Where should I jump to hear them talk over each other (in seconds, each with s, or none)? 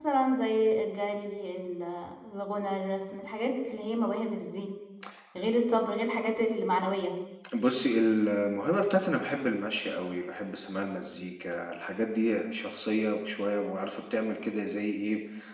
none